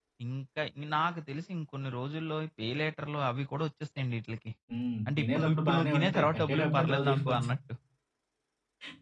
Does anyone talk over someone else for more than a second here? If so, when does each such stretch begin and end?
5.2-7.5

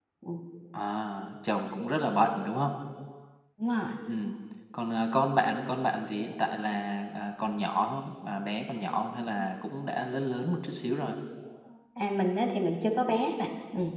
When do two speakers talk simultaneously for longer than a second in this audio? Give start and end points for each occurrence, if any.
none

